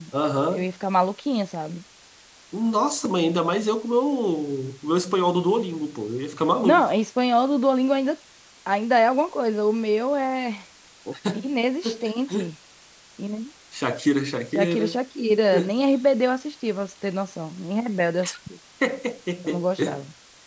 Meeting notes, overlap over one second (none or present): none